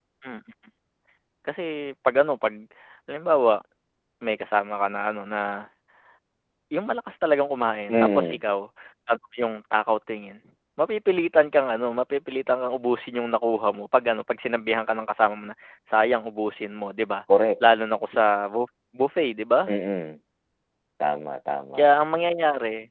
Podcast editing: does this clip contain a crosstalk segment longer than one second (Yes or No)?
No